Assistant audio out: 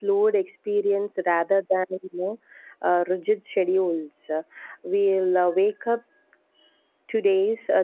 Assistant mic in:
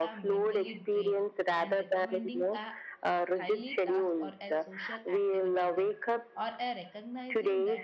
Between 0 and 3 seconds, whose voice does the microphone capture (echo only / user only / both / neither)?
both